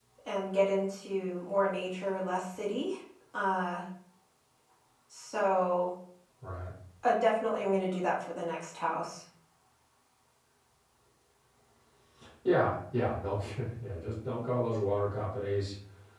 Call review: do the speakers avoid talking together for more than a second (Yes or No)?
Yes